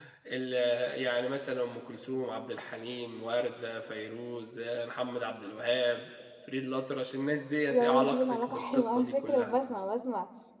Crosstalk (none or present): present